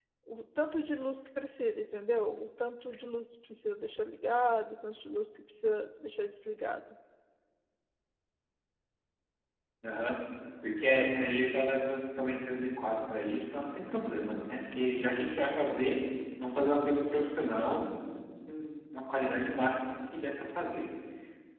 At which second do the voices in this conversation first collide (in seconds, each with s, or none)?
none